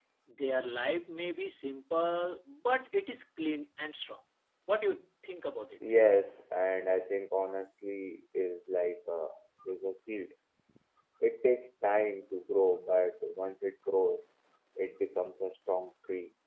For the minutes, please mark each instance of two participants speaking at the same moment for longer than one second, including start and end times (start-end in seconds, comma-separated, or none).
none